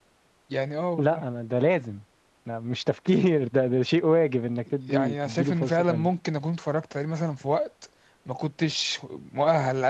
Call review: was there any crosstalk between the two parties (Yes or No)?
Yes